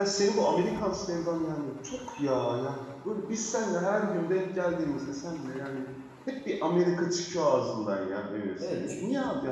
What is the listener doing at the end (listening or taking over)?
taking over